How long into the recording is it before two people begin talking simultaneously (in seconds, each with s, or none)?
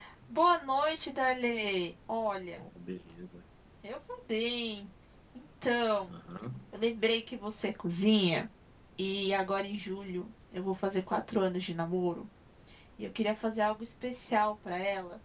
none